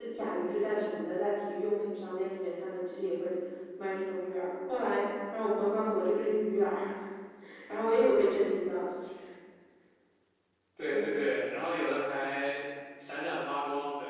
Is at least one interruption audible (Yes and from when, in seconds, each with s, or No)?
No